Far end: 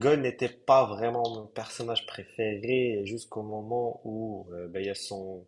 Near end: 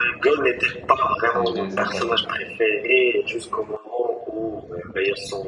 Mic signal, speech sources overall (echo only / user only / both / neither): both